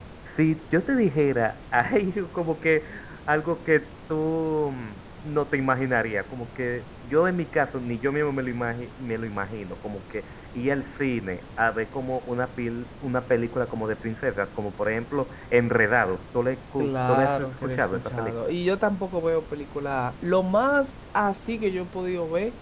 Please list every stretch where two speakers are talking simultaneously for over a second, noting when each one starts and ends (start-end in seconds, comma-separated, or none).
16.8-18.5